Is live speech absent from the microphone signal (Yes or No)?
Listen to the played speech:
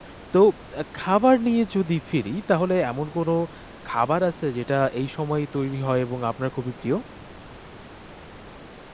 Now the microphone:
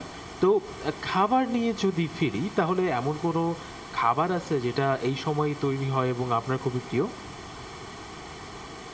Yes